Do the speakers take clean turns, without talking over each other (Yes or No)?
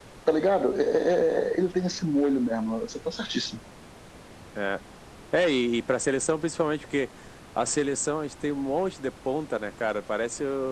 Yes